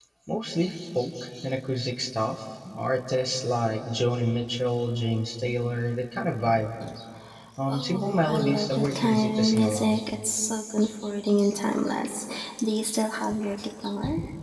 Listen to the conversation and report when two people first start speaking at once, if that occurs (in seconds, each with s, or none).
7.7 s